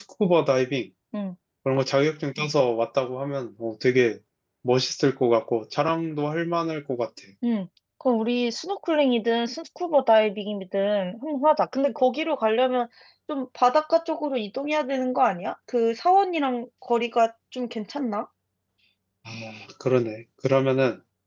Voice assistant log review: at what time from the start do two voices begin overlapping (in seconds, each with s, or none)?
none